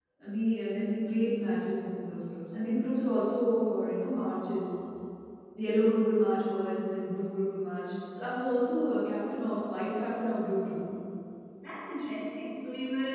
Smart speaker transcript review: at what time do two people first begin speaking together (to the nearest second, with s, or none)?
none